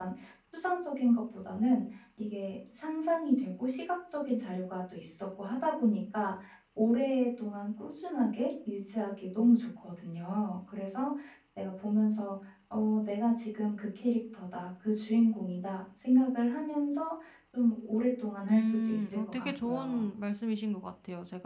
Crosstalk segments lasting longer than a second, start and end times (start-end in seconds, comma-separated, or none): 18.5-20.0